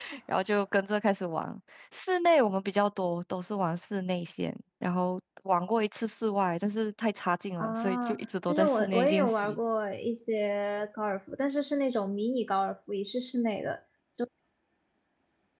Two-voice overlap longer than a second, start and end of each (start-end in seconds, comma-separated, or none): 7.6-9.6